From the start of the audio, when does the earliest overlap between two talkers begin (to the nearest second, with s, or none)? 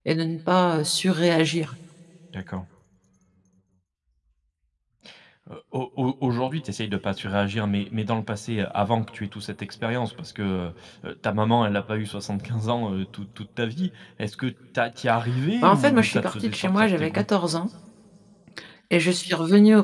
16 s